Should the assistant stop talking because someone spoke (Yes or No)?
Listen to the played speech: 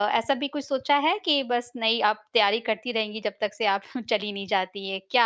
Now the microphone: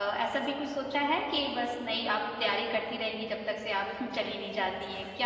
No